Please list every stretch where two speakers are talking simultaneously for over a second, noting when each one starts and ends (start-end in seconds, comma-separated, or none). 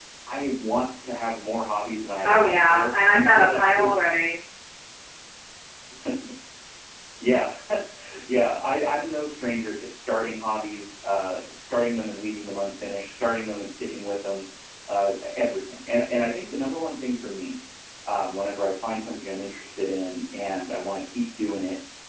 2.3-4.0